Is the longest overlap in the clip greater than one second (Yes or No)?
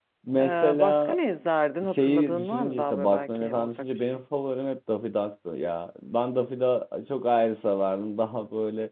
Yes